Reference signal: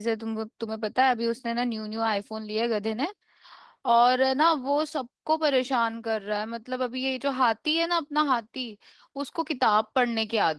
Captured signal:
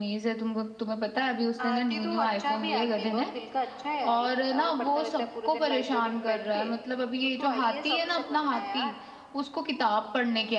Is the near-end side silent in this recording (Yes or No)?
No